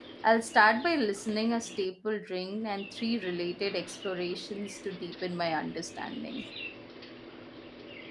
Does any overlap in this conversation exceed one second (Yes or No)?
No